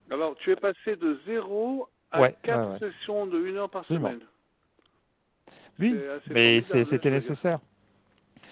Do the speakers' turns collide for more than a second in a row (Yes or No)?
Yes